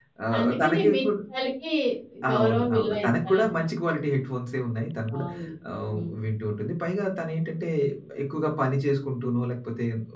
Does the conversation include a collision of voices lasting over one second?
Yes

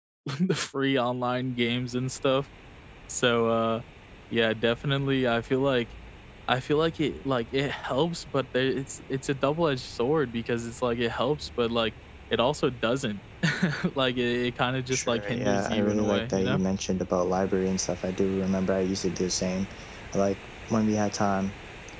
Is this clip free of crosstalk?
No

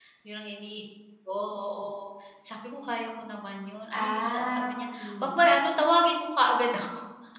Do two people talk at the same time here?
Yes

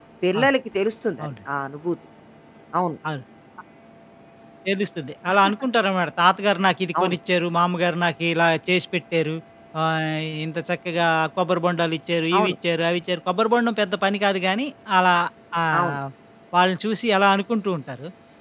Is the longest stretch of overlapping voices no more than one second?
Yes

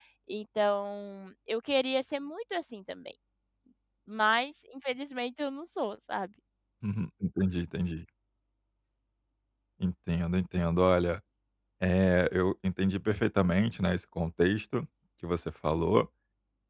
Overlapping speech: No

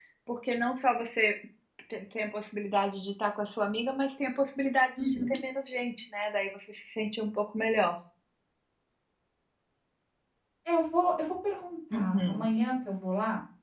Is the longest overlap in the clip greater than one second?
No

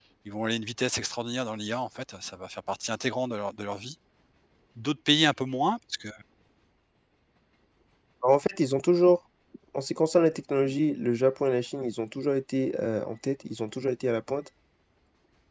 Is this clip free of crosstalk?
Yes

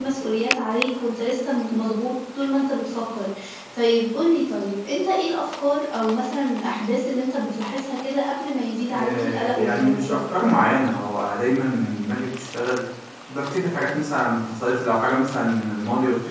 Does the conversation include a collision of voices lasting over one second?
Yes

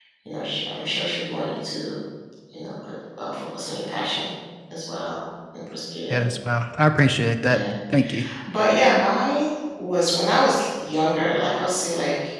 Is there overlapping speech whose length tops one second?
No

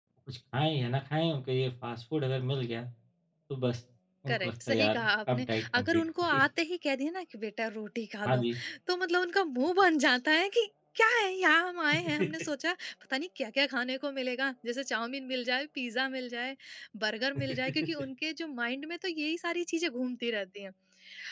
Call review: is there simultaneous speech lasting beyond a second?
Yes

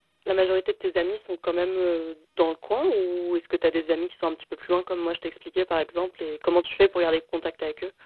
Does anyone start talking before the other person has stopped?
No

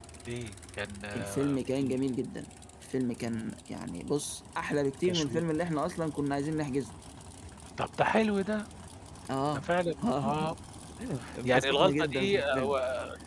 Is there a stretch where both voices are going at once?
Yes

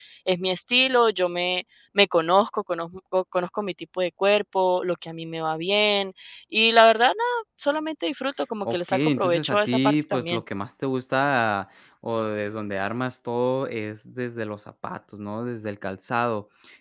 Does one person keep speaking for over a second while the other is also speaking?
Yes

